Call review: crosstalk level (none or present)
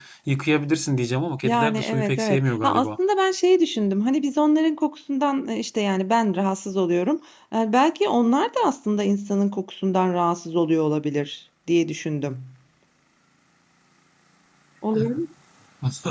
present